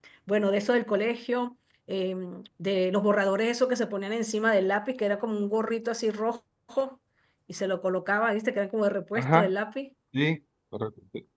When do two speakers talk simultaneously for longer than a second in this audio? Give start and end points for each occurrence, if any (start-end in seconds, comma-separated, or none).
none